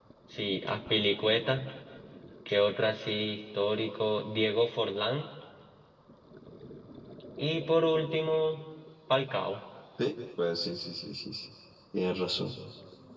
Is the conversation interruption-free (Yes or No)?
Yes